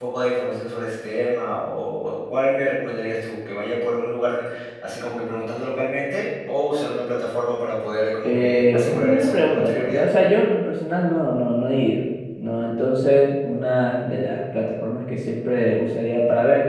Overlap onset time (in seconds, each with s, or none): 8.2 s